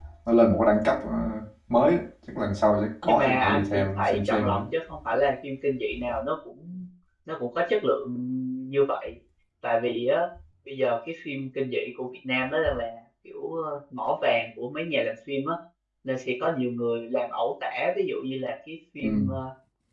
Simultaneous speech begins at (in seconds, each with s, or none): 3.1 s